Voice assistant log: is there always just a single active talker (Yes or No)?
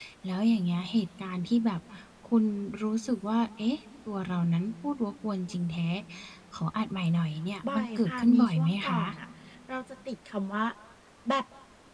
No